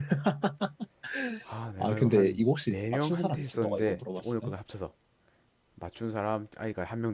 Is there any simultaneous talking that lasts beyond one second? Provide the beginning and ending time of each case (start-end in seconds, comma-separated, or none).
1.8-4.5